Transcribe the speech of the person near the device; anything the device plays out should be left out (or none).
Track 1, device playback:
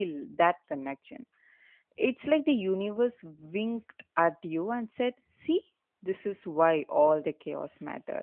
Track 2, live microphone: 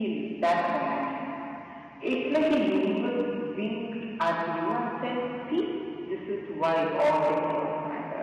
none